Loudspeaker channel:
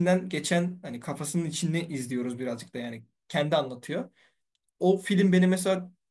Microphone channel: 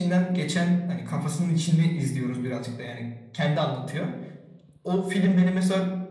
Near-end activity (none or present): none